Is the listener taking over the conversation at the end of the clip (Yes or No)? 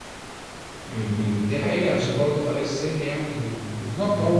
Yes